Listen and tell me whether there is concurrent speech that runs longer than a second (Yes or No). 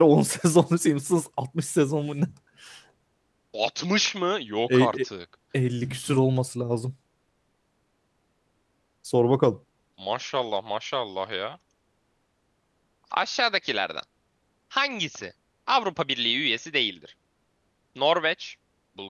No